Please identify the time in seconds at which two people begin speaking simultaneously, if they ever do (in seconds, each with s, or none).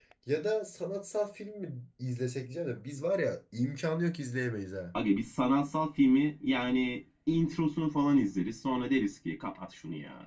none